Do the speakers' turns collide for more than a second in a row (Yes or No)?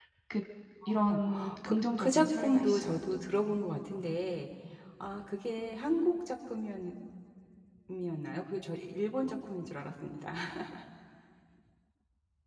Yes